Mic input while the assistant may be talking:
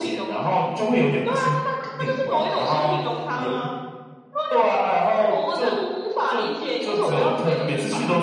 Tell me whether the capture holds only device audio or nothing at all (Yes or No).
Yes